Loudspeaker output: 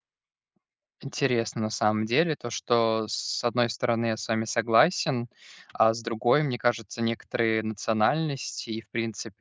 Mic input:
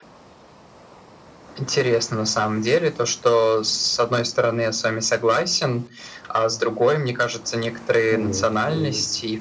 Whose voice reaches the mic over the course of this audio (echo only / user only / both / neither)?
both